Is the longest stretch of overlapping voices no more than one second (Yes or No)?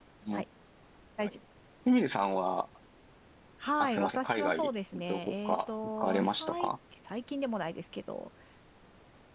No